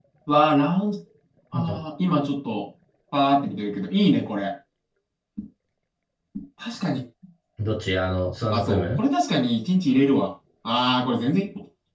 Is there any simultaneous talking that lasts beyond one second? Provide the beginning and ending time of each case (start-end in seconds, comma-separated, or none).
none